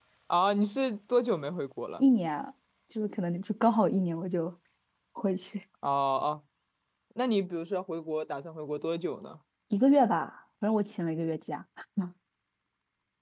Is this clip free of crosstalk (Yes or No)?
Yes